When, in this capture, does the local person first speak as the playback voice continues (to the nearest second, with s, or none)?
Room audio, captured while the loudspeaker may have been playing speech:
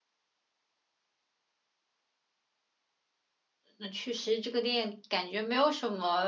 4 s